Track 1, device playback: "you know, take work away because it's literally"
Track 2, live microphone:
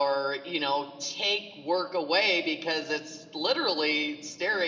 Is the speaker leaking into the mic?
Yes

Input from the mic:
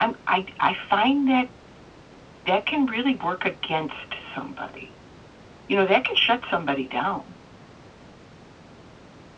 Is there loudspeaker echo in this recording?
Yes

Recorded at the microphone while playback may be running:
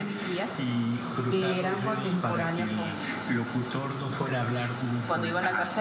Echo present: Yes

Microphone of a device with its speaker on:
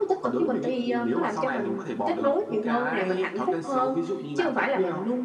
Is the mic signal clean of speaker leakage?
No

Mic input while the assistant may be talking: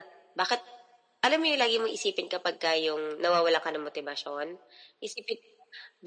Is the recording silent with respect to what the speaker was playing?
No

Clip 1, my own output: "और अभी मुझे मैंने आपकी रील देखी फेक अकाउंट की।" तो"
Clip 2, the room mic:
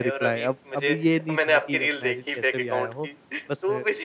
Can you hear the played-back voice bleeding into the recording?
Yes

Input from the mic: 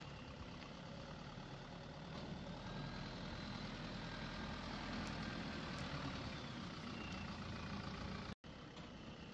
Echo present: No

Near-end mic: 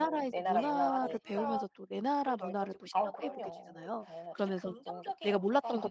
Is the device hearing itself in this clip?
Yes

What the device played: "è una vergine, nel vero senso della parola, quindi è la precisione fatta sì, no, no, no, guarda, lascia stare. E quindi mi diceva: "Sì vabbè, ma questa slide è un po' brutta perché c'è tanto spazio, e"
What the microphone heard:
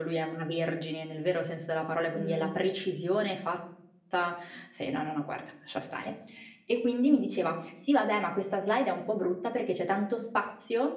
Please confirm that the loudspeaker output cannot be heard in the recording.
No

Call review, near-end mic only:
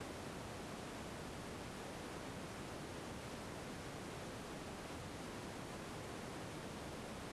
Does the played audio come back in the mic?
No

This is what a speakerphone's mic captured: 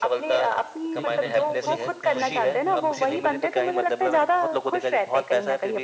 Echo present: Yes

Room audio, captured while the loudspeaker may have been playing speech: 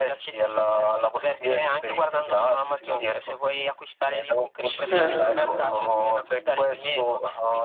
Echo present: Yes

